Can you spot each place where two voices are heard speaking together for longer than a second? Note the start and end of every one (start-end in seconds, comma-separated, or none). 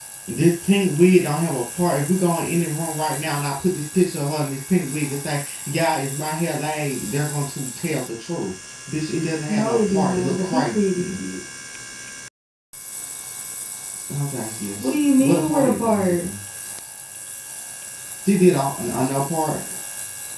9.5-11.0, 14.8-16.2